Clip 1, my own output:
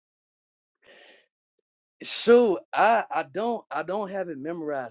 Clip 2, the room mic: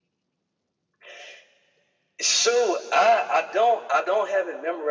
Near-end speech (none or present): none